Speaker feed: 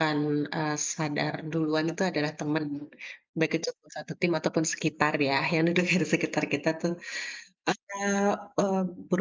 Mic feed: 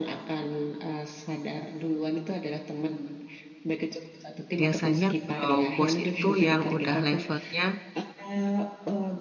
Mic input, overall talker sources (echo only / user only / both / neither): both